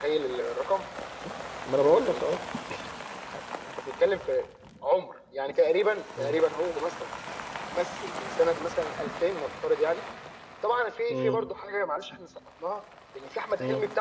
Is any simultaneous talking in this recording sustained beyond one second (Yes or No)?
No